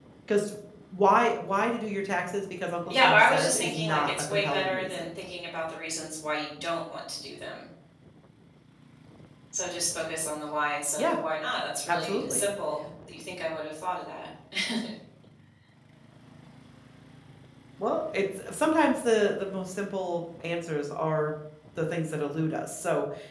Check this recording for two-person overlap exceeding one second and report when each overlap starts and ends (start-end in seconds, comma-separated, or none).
2.9-5.1